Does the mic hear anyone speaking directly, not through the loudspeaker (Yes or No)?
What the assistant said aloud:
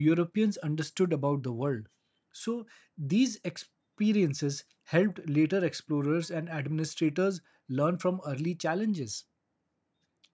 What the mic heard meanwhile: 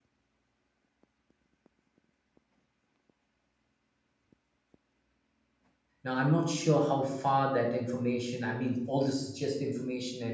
Yes